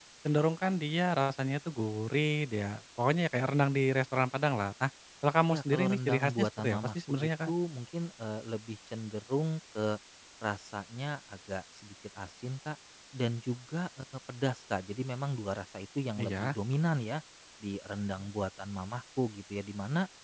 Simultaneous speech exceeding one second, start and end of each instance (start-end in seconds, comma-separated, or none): 5.5-7.5